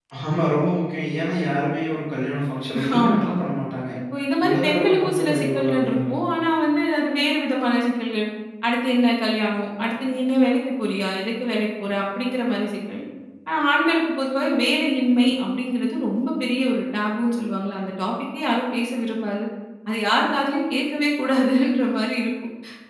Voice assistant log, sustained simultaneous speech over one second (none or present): present